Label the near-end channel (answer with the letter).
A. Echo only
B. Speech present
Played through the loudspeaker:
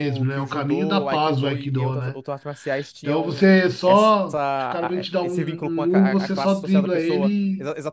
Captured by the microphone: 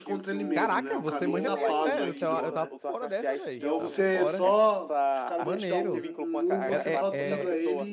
B